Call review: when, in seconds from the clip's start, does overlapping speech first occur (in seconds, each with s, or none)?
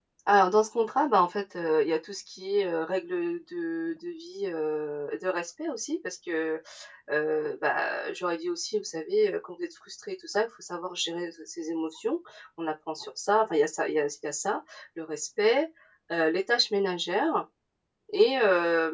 none